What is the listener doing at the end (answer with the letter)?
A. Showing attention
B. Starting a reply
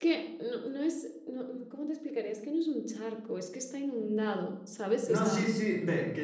B